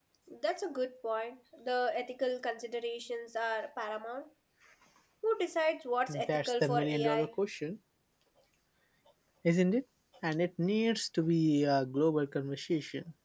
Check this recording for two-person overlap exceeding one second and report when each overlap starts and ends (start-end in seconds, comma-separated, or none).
6.1-7.3